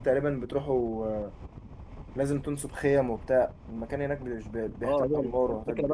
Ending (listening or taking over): taking over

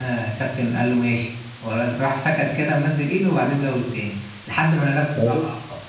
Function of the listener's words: listening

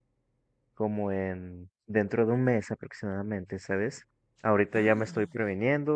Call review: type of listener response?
listening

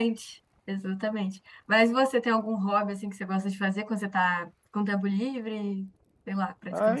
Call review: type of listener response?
taking over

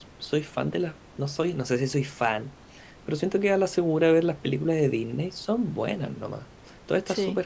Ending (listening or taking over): listening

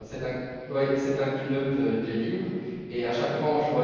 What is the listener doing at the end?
listening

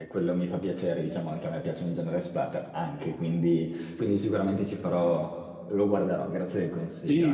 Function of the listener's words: taking over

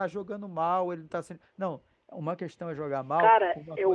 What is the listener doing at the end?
taking over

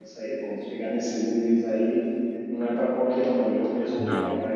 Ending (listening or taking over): listening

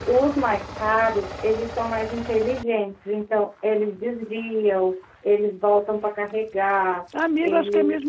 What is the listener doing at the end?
taking over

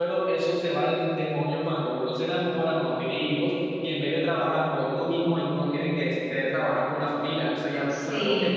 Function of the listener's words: listening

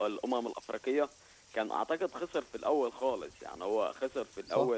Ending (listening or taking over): listening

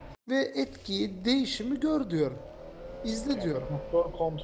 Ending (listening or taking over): taking over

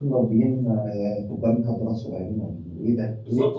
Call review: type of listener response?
taking over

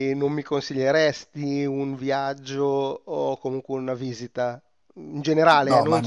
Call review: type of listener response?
listening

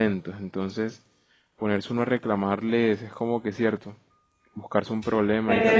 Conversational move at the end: taking over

